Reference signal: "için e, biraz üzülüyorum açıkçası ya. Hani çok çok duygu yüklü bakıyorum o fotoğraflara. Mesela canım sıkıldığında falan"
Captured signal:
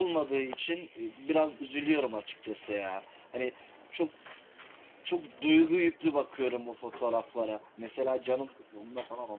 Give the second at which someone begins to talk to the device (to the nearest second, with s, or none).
none